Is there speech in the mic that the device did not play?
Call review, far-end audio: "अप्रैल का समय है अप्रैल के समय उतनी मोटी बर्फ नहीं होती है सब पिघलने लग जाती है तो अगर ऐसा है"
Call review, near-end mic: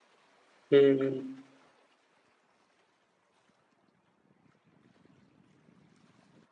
Yes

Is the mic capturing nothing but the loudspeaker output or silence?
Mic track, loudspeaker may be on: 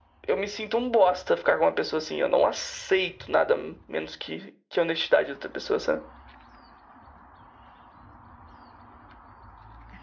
Yes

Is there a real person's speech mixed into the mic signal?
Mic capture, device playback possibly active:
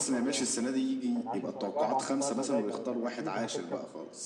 Yes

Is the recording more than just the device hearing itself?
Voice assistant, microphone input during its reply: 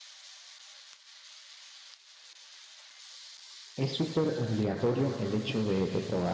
Yes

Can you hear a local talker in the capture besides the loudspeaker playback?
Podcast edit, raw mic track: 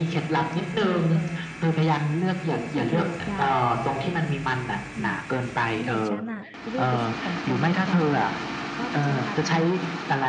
Yes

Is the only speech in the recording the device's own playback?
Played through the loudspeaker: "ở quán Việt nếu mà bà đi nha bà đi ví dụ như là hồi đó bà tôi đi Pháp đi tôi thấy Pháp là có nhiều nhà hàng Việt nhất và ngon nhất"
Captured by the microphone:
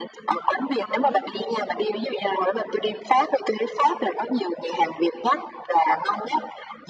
No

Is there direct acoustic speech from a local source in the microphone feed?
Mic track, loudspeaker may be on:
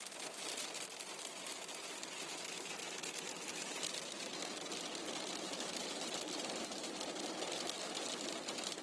No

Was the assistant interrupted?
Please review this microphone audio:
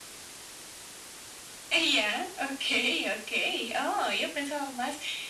No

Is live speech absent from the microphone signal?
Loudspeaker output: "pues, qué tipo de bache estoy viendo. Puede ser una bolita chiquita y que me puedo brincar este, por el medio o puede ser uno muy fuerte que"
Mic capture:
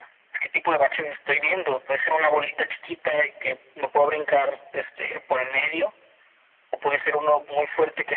Yes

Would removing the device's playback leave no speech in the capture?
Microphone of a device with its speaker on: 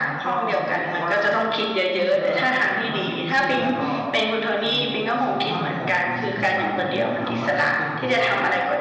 No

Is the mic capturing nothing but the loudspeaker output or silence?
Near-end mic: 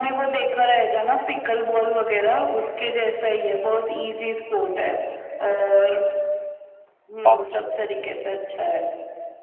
No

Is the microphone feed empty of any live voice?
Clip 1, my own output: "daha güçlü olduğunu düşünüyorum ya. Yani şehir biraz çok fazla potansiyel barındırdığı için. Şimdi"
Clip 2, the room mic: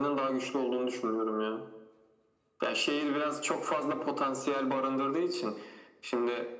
Yes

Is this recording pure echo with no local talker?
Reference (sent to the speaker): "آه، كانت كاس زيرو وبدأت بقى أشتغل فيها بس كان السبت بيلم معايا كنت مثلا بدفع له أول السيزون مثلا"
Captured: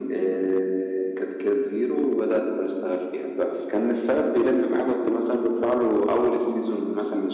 Yes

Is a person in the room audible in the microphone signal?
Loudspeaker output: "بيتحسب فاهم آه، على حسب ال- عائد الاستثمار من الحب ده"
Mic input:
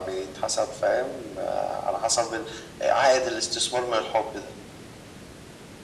No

